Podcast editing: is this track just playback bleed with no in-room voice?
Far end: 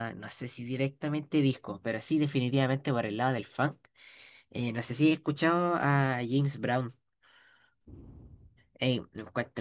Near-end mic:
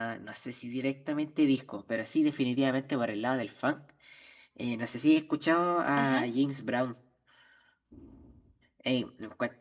No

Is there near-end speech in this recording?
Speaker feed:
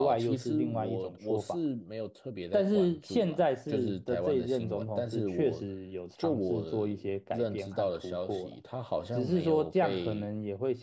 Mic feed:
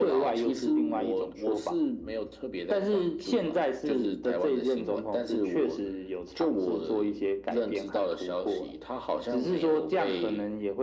No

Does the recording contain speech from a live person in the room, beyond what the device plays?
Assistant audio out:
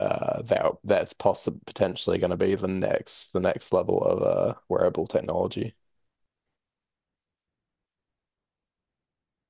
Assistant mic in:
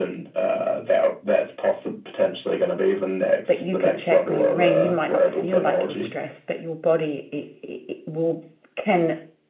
Yes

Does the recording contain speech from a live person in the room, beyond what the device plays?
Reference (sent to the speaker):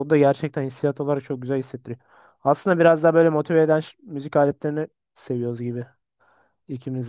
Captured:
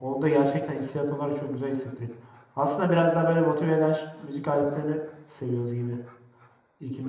No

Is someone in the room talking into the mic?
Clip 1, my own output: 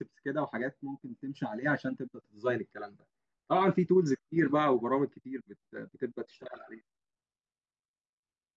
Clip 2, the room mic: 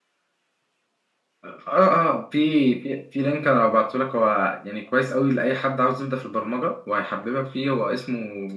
Yes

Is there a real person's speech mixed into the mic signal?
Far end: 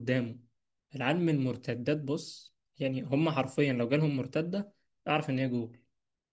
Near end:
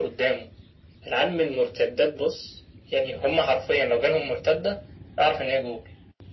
No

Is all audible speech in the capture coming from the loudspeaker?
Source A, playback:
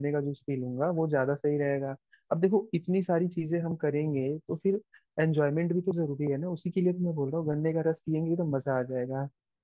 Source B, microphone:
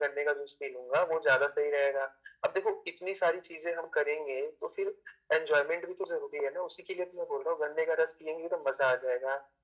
Yes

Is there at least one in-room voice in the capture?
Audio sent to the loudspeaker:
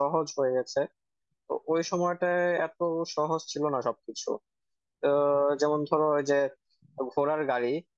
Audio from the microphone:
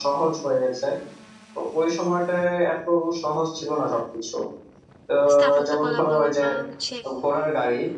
Yes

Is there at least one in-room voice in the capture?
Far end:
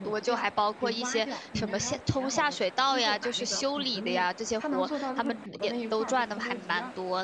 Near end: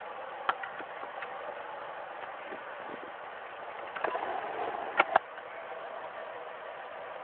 No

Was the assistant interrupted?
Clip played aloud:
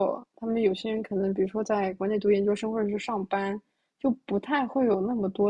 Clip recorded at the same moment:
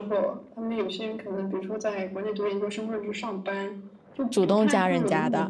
Yes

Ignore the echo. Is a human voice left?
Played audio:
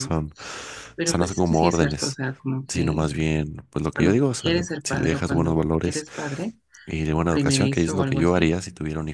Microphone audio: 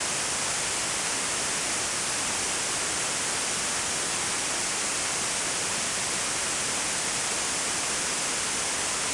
No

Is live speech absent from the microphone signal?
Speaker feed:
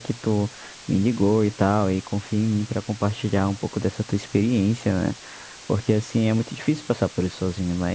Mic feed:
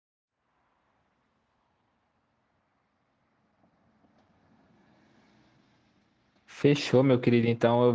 No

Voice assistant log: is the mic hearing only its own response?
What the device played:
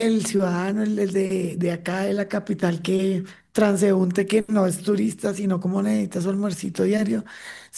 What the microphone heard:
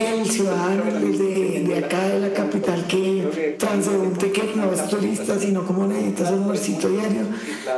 No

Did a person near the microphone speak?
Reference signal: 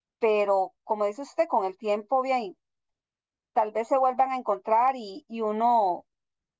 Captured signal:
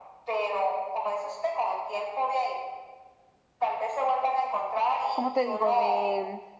Yes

